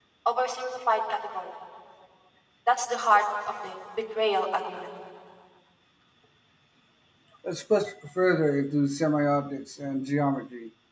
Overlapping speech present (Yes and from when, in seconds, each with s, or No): No